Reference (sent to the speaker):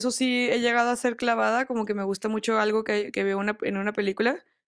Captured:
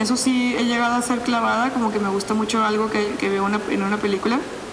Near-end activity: none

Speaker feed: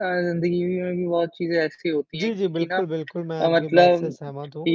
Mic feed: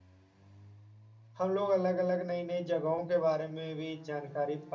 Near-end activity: present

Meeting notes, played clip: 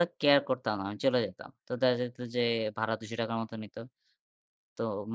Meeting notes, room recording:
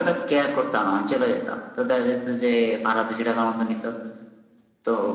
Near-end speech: none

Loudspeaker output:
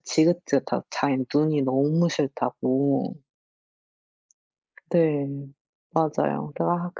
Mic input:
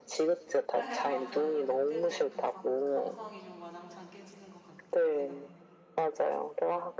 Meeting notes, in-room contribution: present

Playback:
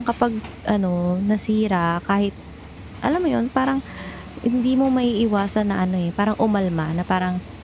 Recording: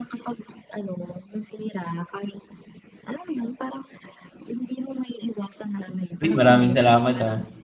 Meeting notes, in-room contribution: present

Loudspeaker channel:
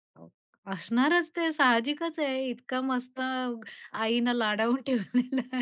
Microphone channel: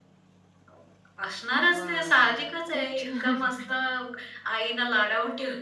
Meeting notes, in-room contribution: present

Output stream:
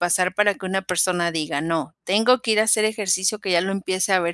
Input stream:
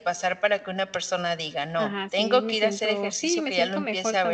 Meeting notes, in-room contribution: present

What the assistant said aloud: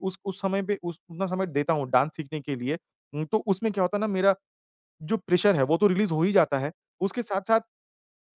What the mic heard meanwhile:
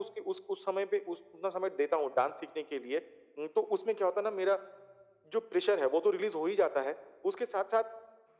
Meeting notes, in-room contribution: none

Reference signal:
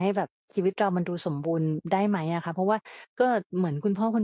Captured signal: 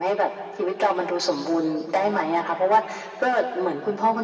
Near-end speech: none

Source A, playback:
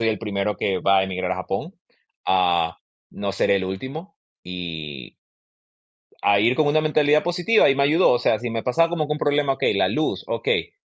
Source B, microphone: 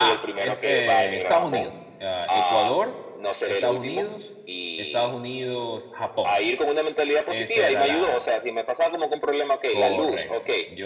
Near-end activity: present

